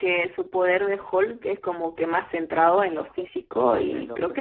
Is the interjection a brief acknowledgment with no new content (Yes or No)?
No